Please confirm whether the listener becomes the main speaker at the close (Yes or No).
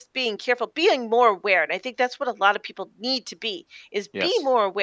No